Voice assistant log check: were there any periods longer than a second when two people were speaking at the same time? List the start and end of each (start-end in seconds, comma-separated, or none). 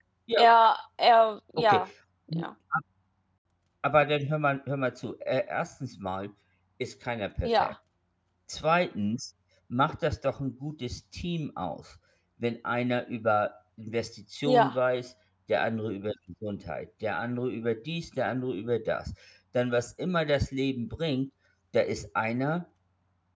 none